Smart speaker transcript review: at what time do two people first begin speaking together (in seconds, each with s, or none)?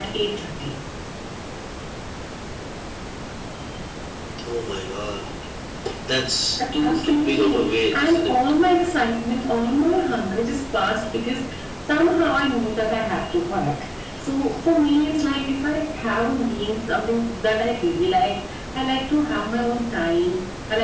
6.7 s